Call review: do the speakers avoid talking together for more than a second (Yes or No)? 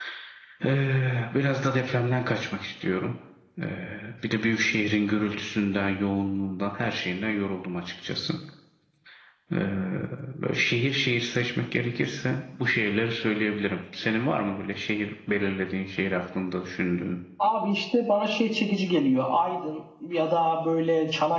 Yes